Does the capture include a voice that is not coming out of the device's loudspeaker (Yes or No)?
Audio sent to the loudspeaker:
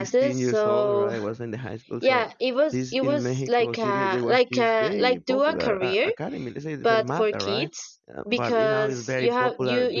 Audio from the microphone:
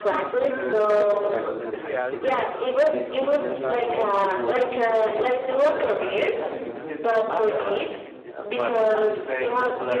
Yes